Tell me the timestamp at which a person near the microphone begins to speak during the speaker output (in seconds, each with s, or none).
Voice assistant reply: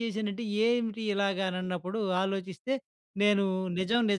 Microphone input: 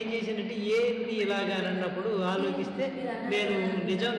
1.5 s